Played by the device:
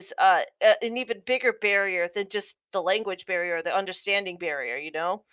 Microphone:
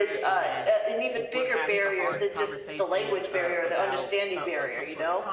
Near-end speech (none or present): present